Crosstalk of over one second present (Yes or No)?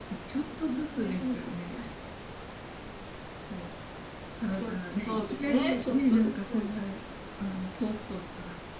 Yes